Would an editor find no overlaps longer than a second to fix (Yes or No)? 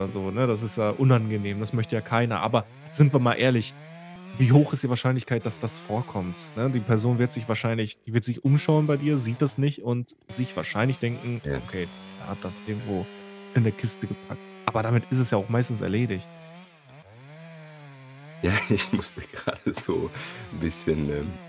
Yes